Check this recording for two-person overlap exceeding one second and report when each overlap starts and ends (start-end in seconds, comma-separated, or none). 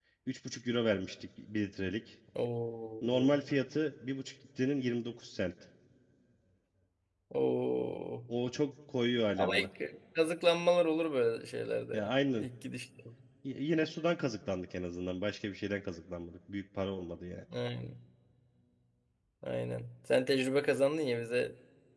none